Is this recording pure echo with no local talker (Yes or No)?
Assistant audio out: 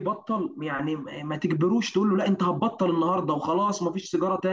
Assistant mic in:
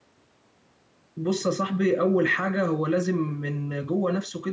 No